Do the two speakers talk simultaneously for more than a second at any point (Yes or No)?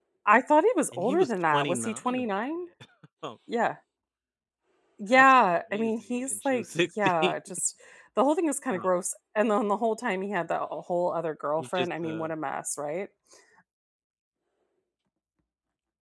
Yes